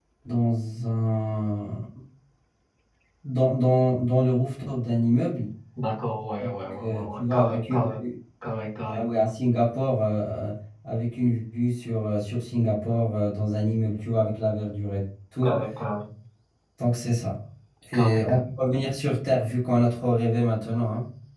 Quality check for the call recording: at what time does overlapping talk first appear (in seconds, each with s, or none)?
6.4 s